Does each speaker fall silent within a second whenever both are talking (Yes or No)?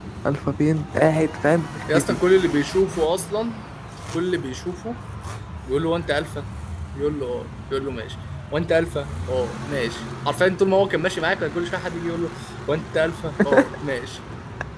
Yes